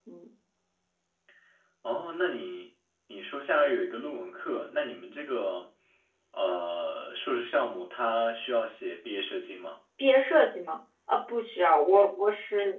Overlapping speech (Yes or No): No